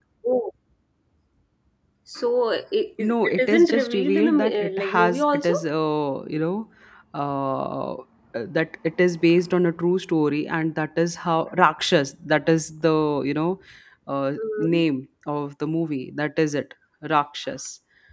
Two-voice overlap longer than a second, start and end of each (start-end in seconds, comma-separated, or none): 3.0-5.5